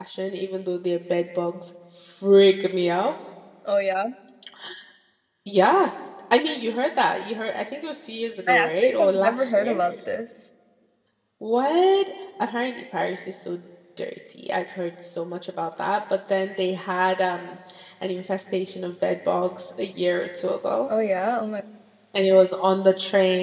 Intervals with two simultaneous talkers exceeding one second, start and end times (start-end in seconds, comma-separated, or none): 8.5-9.8